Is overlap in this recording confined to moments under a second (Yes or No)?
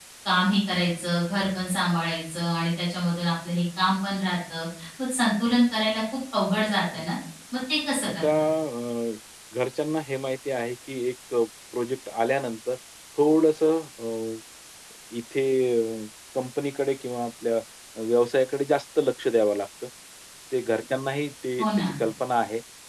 Yes